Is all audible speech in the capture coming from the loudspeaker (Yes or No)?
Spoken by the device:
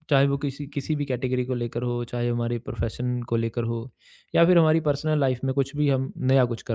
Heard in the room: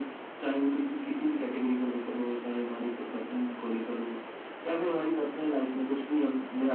Yes